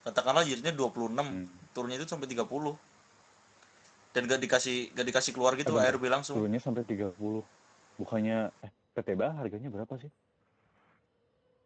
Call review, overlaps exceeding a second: none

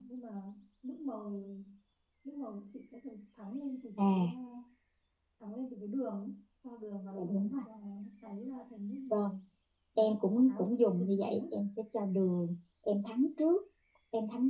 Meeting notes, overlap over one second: present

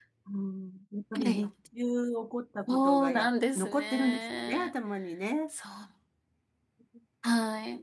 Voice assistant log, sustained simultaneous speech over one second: present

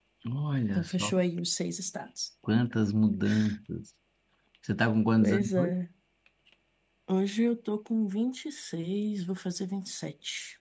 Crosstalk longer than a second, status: none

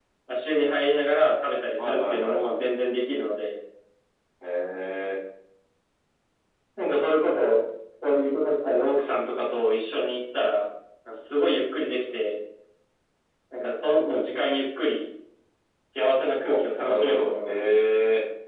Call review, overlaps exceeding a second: present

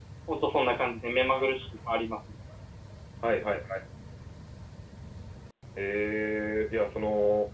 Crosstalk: none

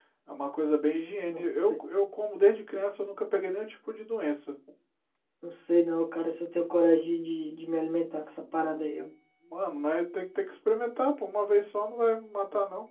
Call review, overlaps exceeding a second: none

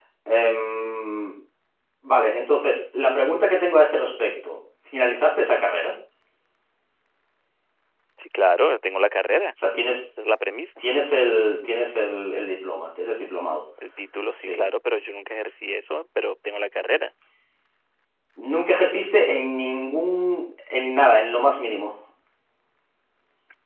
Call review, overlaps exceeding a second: none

